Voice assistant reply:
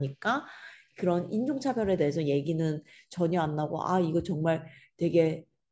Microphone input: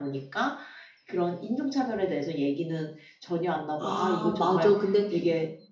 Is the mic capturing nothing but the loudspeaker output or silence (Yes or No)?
No